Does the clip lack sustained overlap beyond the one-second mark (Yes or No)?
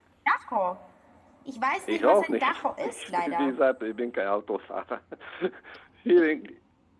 No